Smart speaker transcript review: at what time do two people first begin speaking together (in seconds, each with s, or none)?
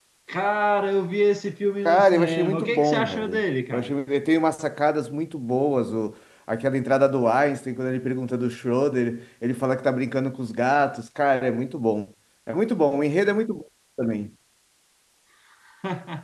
1.8 s